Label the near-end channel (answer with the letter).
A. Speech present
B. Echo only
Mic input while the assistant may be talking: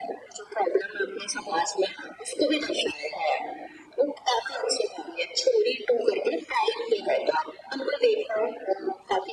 B